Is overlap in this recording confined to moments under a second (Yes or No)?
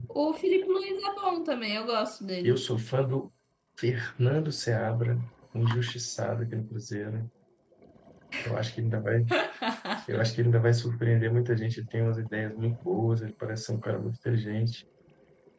Yes